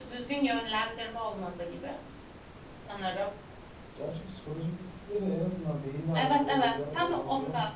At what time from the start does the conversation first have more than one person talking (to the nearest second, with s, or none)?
6 s